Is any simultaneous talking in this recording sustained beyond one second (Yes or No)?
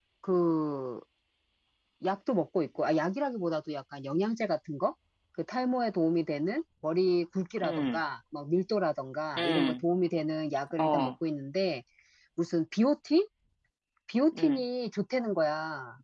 No